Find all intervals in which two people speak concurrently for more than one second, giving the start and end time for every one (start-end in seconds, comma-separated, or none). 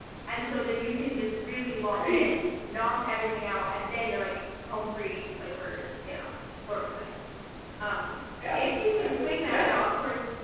8.5-9.8